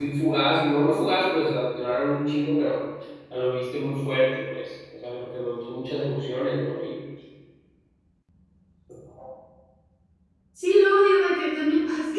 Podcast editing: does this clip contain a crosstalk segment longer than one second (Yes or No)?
No